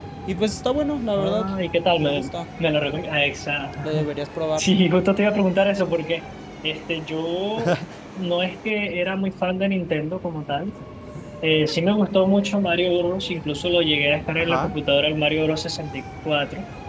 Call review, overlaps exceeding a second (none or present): none